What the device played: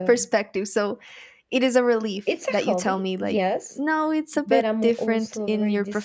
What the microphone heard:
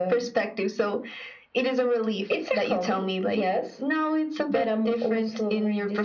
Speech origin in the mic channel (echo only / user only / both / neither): echo only